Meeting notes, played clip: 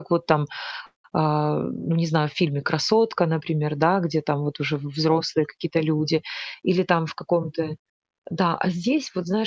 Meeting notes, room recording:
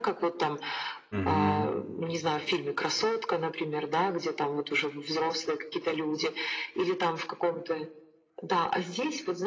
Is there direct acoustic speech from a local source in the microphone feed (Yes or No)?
Yes